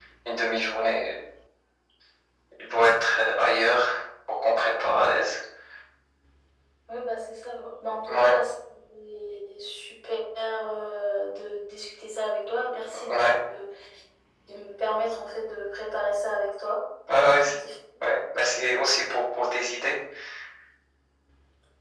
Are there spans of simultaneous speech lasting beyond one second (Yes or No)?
No